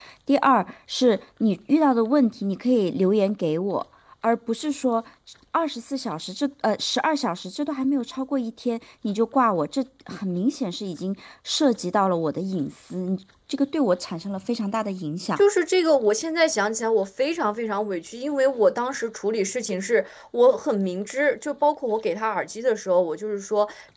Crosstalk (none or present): none